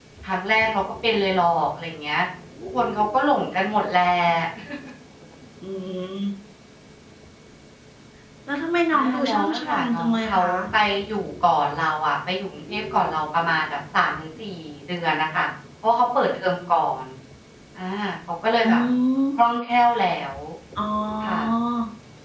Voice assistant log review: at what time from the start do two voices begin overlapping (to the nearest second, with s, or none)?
9 s